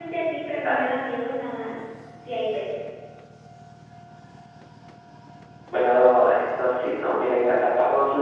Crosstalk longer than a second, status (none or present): none